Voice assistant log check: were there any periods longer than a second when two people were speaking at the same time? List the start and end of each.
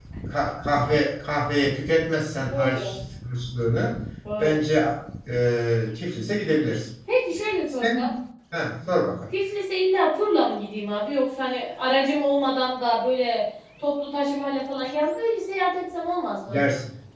none

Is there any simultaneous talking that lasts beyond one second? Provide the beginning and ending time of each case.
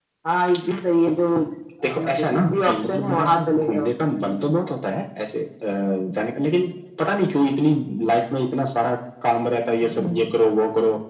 2.0-3.9

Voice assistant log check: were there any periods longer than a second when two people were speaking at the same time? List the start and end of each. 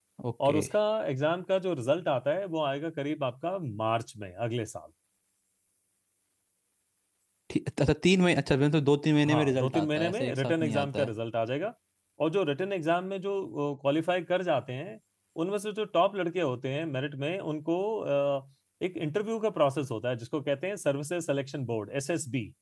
9.2-11.1

